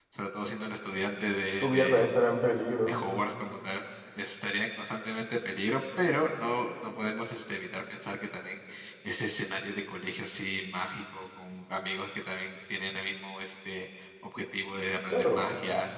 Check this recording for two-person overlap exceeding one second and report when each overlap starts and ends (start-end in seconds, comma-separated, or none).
none